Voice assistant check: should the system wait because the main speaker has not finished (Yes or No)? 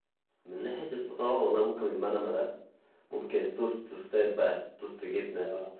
Yes